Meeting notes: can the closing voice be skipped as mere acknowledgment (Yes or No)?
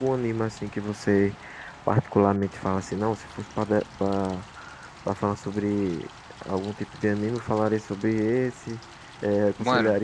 Yes